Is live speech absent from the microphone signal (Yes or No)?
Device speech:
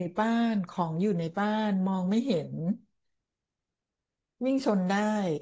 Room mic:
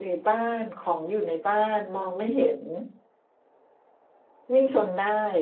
Yes